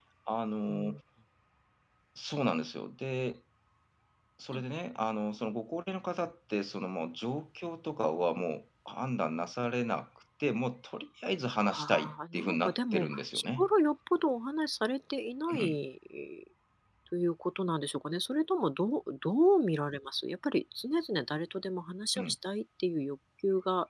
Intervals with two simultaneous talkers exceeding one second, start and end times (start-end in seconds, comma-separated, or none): 11.6-13.7